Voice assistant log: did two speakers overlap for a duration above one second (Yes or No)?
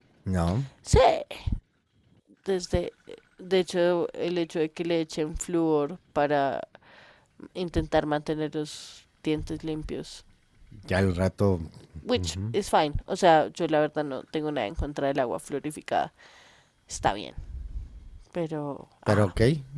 No